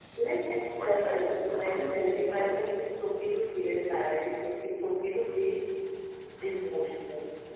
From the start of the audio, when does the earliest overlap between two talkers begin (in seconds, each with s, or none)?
0.7 s